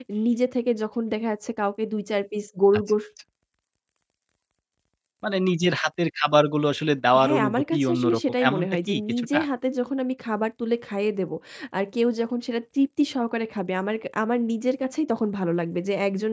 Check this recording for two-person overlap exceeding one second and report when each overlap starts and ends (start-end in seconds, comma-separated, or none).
7.2-9.4